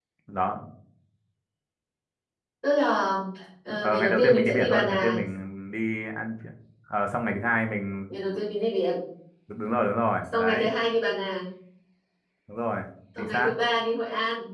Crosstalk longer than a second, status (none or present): present